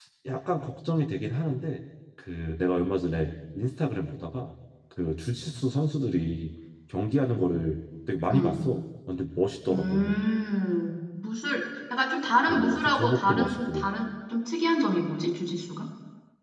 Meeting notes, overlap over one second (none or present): present